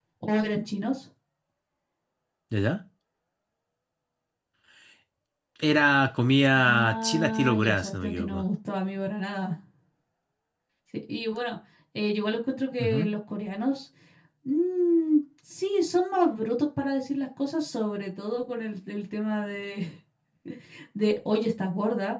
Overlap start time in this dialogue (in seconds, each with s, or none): 6.5 s